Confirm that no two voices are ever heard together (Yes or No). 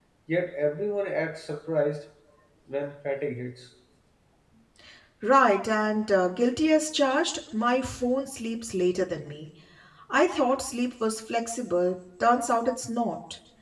Yes